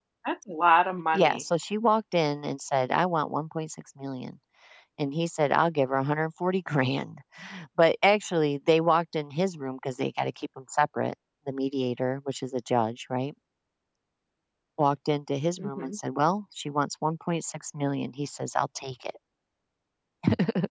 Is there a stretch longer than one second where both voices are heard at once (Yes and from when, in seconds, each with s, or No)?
No